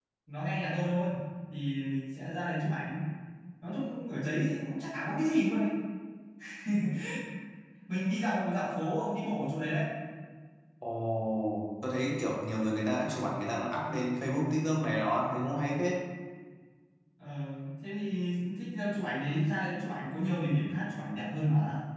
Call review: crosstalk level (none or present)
none